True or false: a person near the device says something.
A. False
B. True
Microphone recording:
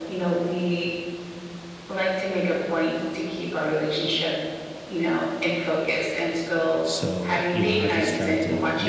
B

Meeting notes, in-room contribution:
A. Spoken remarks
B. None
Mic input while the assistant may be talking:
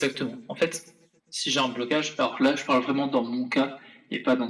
B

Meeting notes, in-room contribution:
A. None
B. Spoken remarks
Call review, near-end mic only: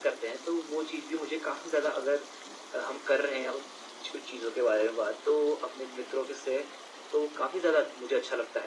A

